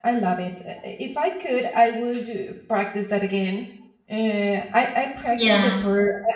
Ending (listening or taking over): listening